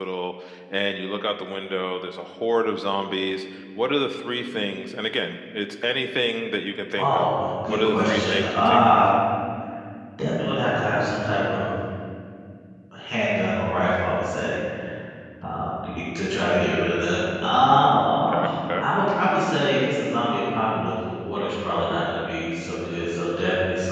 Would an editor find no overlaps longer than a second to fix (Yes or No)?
No